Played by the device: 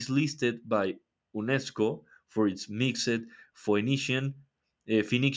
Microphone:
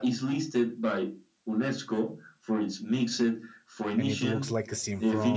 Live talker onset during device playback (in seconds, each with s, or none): 3.9 s